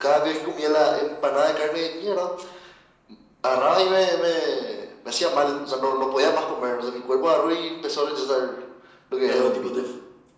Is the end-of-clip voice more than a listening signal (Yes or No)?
Yes